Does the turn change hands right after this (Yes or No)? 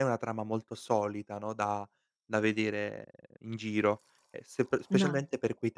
No